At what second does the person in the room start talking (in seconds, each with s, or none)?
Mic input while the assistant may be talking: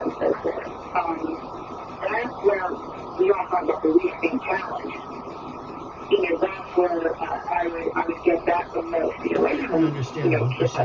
9.3 s